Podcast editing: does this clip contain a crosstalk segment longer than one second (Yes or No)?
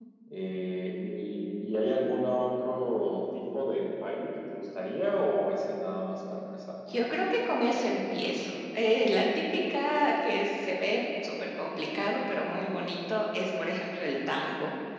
No